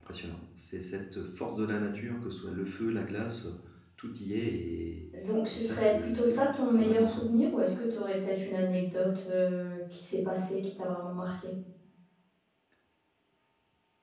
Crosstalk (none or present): present